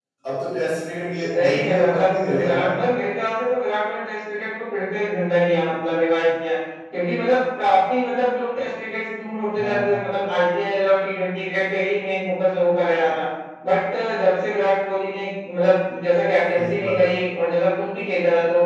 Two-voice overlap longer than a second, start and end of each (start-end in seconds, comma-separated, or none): 1.4-2.8